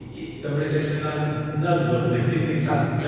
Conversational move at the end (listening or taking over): taking over